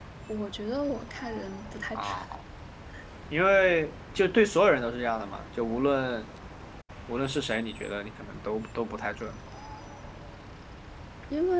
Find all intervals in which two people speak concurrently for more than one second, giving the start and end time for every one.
none

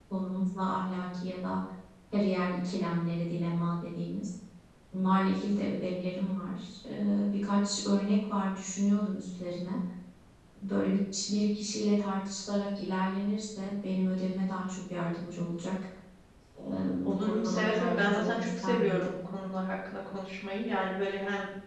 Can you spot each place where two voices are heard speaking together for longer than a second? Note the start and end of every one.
17.1-19.2

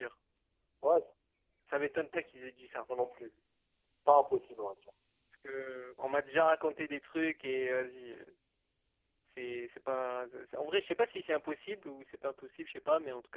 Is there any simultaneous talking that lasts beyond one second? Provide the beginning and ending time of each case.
none

